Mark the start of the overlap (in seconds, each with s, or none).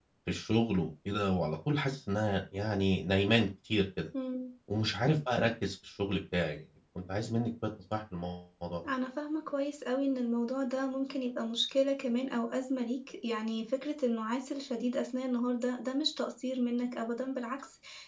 none